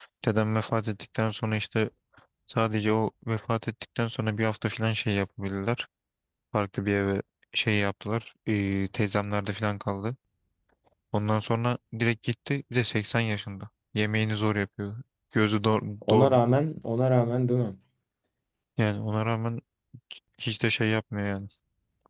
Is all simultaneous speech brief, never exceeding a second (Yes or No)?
Yes